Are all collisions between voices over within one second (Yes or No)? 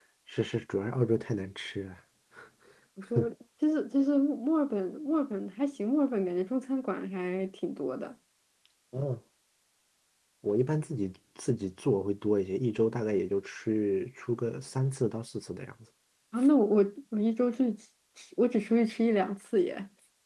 Yes